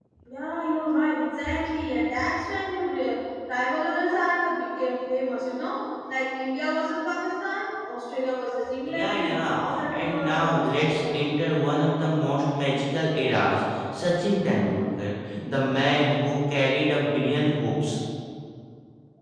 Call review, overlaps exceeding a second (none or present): present